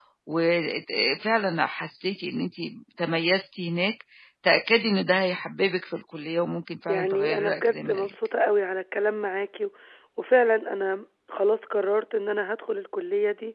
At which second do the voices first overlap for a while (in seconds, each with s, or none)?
6.9 s